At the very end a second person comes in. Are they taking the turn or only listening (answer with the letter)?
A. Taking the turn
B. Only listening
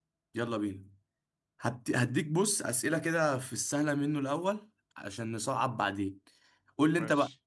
B